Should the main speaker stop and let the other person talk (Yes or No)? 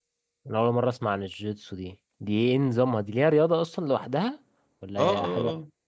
Yes